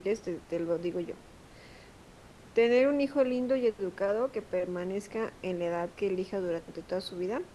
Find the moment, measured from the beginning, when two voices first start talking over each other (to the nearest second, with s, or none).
none